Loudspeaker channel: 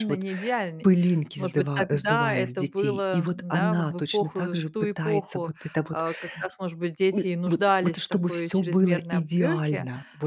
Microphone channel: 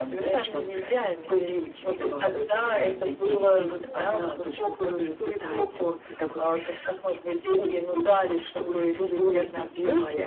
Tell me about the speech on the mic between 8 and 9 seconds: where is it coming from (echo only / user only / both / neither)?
echo only